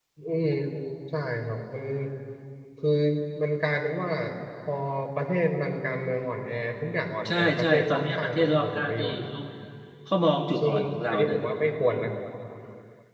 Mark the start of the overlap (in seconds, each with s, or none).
7.3 s